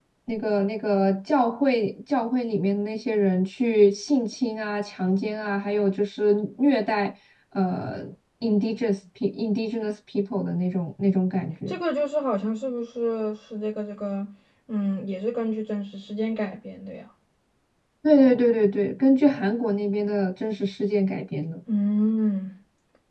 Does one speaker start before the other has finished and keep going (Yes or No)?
No